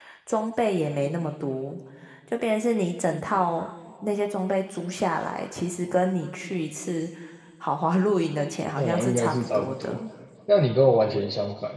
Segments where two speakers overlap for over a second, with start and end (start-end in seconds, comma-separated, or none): 8.8-10.0